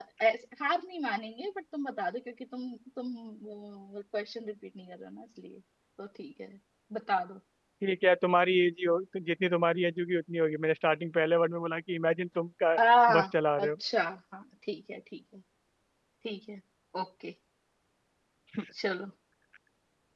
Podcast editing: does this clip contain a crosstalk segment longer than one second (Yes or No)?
No